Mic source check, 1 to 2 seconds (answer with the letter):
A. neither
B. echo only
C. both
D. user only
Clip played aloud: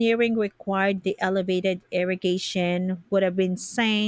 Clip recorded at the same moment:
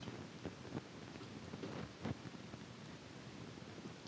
A